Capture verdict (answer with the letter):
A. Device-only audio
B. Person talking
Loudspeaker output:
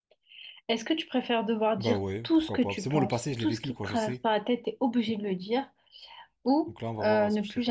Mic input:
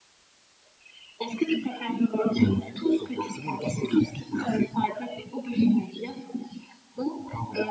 A